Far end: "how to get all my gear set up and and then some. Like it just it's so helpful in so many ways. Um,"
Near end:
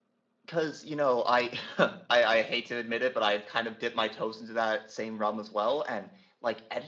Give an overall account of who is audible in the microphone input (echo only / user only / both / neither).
user only